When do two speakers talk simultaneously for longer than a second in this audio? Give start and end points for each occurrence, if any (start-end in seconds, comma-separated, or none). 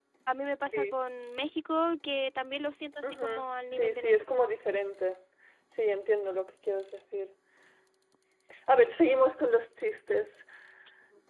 3.0-4.4